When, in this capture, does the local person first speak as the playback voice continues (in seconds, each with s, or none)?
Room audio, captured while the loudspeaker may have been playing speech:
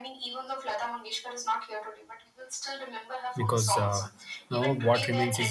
3.4 s